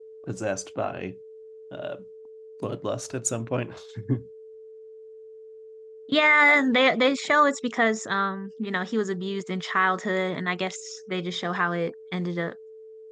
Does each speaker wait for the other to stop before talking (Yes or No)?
Yes